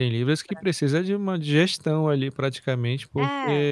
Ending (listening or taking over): listening